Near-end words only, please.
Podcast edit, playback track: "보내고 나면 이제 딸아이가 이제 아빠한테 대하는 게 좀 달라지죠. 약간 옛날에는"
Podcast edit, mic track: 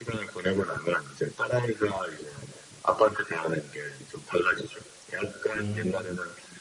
음.

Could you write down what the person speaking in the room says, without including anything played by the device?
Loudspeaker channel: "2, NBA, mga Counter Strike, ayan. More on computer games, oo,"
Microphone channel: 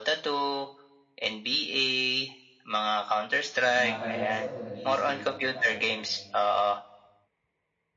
'pag pumapadyak kasi ako 'pag nag skate ako para bang

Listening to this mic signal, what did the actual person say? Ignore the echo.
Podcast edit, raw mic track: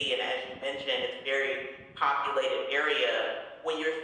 none

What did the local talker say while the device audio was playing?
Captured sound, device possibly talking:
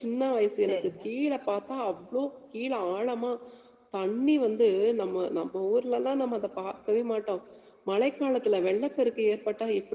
சரிங்க.

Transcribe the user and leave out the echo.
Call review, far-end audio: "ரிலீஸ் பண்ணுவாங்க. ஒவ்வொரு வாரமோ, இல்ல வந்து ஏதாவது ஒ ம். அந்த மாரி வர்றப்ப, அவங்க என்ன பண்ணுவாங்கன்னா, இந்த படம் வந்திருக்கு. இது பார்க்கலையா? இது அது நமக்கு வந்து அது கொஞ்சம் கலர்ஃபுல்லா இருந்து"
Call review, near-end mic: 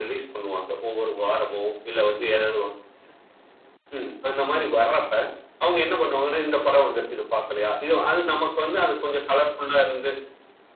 none

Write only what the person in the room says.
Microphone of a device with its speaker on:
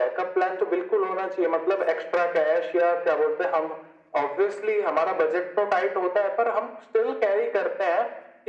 none

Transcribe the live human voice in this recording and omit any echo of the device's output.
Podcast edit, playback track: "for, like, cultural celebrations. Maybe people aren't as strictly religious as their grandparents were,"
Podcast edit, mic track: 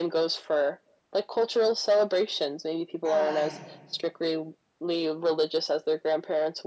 Right.

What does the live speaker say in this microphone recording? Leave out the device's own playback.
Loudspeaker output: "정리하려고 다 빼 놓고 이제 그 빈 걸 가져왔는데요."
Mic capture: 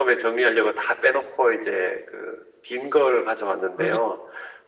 그렇기

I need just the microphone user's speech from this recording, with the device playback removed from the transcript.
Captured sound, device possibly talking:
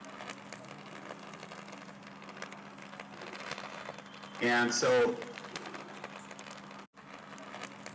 and so,

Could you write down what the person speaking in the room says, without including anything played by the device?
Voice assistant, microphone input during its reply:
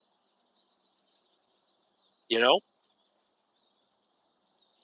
you know?

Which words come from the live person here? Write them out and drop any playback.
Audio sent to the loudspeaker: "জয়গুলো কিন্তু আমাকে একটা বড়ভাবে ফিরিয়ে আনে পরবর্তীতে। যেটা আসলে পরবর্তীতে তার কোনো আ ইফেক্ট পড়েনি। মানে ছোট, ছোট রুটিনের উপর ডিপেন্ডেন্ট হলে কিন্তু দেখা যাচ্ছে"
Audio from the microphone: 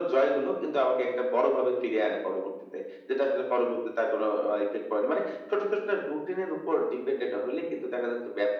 none

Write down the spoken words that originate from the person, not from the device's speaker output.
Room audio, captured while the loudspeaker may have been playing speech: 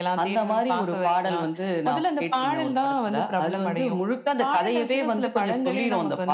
none

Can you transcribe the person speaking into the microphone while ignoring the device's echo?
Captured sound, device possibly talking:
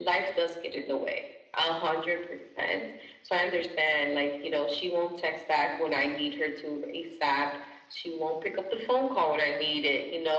none

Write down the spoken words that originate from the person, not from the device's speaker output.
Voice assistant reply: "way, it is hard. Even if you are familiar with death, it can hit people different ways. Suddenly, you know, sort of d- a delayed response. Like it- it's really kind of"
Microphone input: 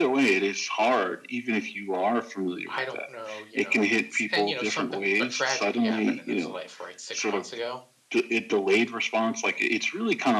I don't know, you know, if it's, and, you know, something, a tragedy happened in his life, right? Six months ago,

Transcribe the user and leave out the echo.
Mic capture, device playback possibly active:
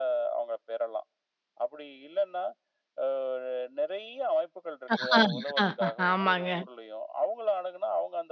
ஆஹா, ஆஹா, ஆமாங்க.

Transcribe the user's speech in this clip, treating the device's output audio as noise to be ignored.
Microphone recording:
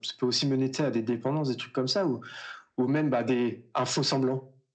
none

